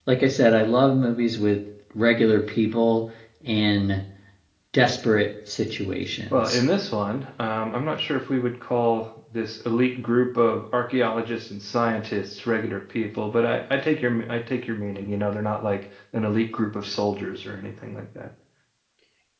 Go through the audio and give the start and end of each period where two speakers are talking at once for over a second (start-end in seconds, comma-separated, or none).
none